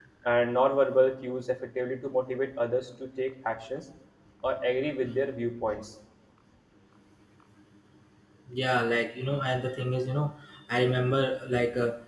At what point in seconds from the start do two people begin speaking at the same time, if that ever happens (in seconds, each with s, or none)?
none